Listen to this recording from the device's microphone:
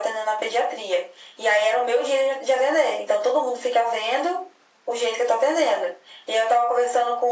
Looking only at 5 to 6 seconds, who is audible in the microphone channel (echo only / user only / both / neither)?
echo only